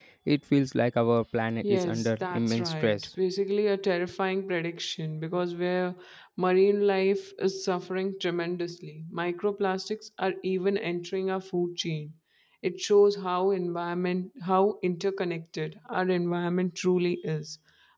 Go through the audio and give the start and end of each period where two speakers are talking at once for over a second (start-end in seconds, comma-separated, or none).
1.6-3.1